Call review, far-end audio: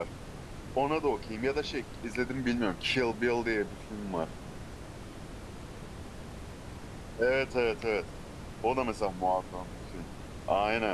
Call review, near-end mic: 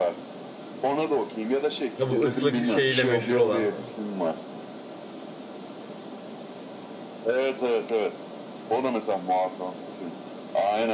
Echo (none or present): present